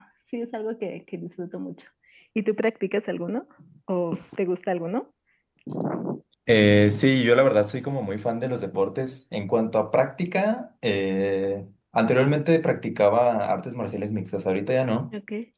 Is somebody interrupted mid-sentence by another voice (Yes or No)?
No